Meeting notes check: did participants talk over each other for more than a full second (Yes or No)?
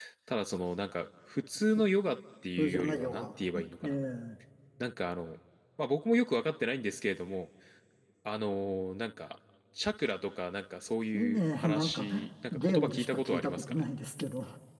Yes